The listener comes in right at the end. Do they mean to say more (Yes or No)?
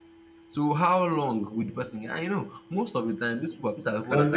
Yes